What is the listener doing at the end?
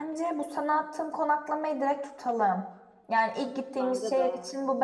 listening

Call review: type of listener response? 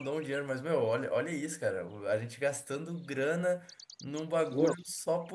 listening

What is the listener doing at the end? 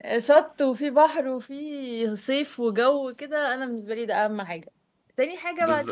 taking over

